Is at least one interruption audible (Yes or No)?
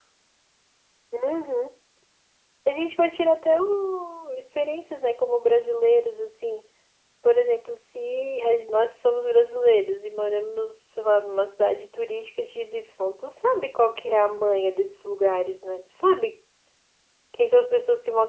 No